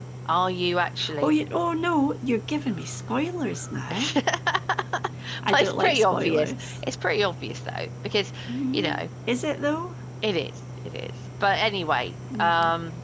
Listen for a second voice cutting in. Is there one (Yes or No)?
Yes